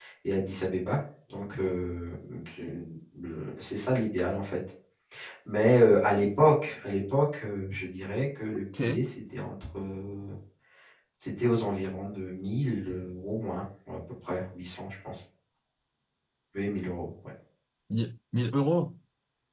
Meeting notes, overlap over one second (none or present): none